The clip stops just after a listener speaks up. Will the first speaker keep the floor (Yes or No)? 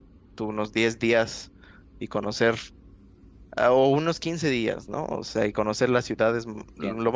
Yes